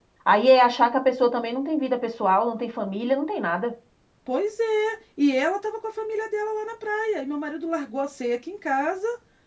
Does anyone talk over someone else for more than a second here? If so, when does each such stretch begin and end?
none

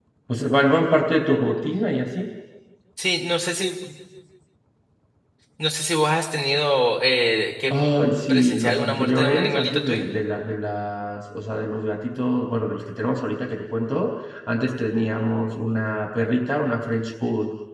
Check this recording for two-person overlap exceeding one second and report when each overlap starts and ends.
8.3-10.1

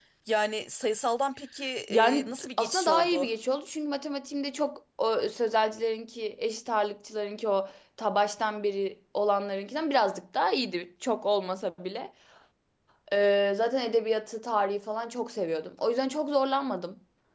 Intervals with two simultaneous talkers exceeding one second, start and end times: 1.9-3.3

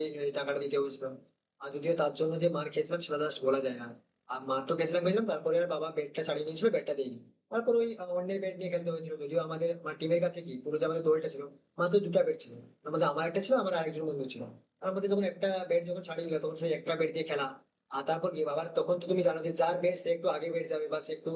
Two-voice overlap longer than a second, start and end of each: none

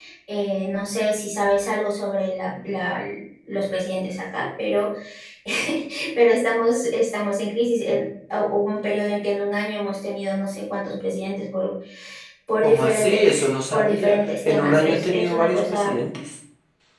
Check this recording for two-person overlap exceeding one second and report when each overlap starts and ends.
12.6-16.0

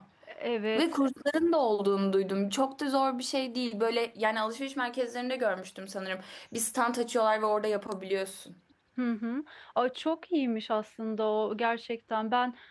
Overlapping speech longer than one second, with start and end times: none

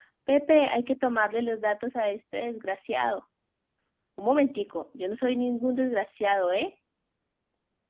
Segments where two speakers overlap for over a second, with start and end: none

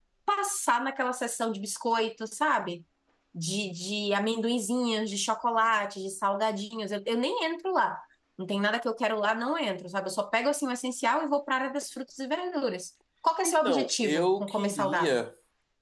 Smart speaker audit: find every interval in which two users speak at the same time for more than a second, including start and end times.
13.4-15.2

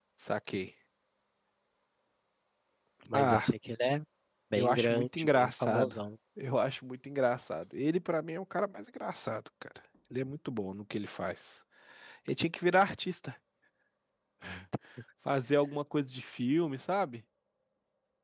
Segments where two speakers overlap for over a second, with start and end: 4.5-6.0

